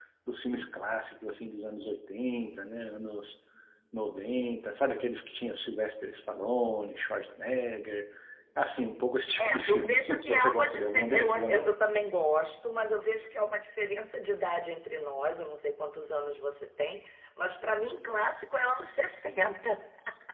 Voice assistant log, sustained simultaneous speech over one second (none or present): present